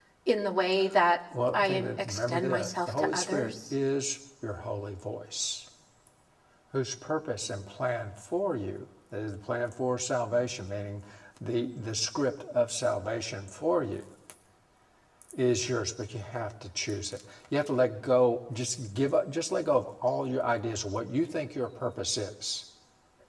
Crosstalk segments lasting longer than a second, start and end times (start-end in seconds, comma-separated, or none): 1.5-3.7